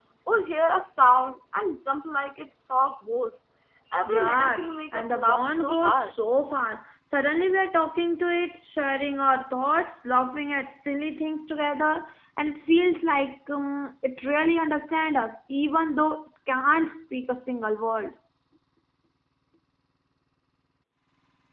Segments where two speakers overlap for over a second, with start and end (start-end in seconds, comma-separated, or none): 4.0-6.1